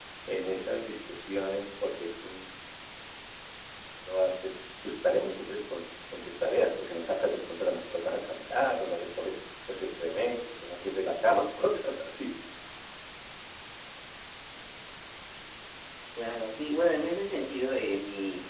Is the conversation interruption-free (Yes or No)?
Yes